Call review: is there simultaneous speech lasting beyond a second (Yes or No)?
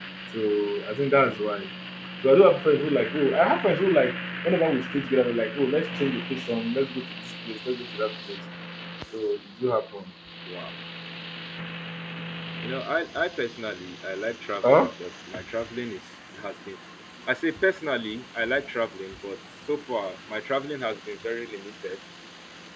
No